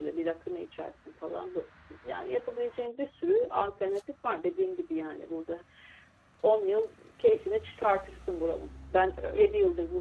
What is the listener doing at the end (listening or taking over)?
listening